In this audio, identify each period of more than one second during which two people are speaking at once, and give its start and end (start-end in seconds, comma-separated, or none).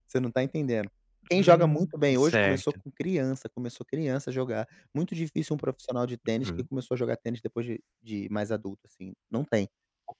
1.3-2.6